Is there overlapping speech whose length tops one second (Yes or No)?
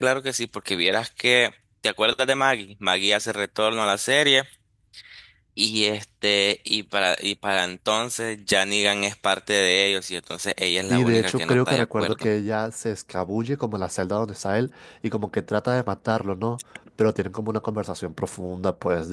Yes